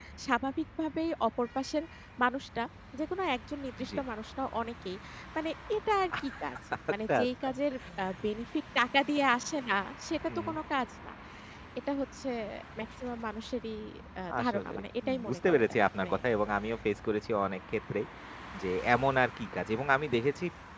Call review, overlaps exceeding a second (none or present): present